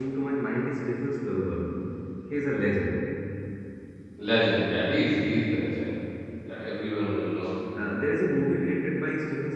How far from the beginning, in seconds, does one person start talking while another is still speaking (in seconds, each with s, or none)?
none